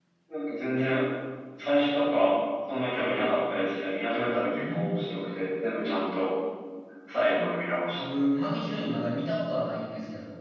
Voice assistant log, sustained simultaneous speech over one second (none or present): none